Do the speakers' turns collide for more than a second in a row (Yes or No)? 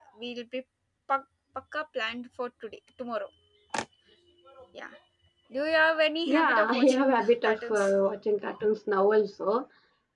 Yes